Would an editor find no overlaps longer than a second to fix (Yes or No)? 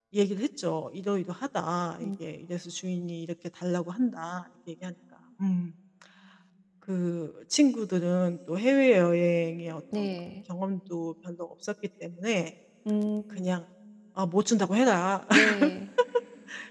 Yes